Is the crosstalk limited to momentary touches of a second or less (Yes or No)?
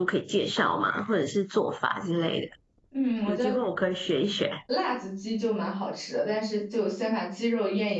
Yes